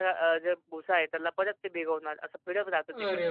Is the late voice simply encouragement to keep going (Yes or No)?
No